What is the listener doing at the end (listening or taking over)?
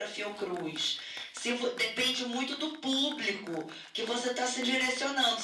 listening